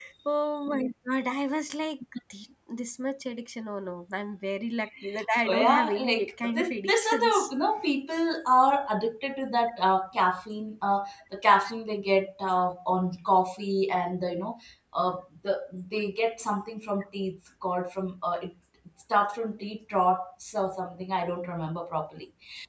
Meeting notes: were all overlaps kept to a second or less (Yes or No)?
No